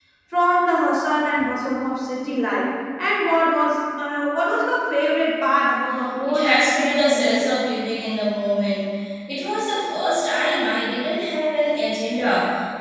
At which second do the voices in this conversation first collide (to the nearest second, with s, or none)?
6 s